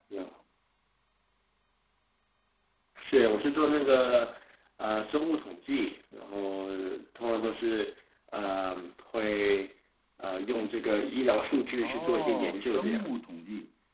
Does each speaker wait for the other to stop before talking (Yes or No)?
No